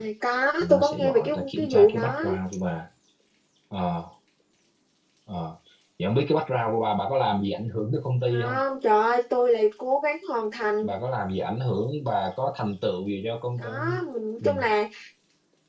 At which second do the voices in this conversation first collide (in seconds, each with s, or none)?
0.6 s